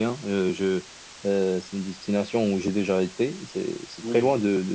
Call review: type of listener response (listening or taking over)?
listening